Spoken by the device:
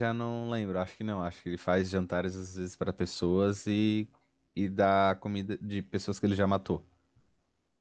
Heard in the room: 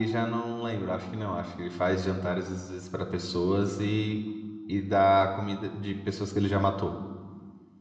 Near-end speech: none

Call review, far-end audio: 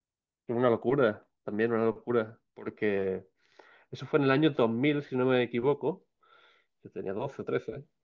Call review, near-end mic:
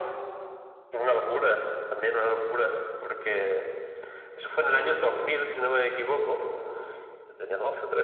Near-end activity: none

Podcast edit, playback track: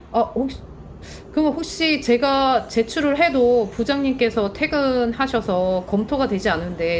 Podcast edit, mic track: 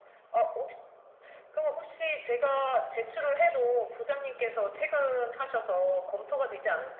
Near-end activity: none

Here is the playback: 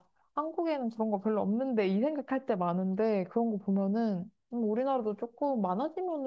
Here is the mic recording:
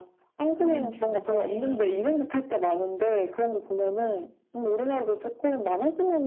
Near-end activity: present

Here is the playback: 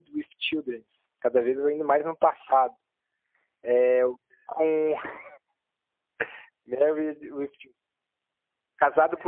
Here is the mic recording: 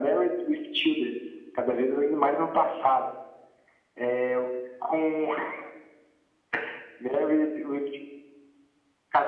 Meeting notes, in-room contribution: none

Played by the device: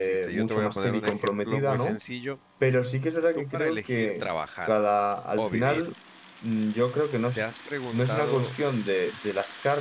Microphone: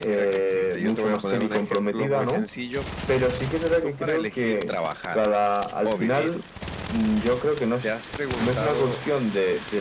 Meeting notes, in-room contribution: none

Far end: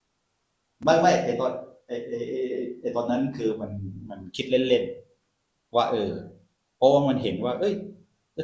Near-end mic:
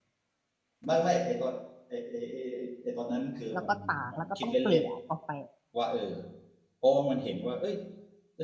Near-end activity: present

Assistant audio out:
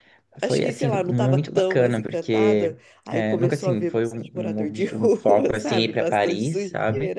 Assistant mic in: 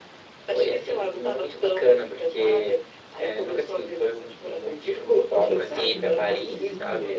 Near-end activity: present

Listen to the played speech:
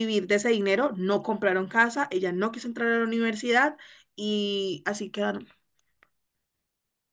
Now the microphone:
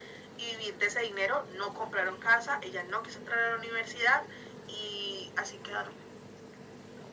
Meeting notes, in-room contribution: none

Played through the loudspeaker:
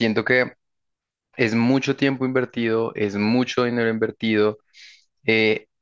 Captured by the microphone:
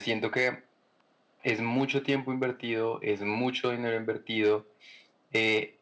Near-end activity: none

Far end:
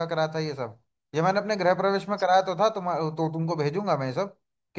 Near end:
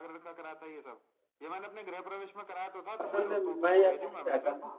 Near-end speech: present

